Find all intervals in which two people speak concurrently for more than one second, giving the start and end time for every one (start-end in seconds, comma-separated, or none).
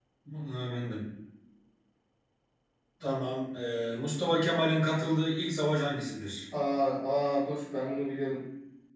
none